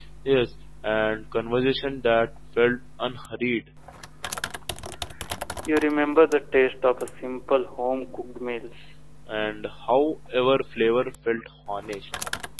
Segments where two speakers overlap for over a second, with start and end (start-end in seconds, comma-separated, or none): none